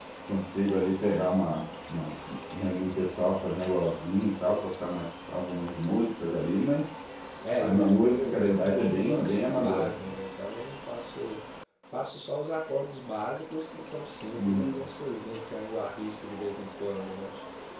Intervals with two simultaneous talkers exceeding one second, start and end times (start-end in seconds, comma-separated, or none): 7.6-10.1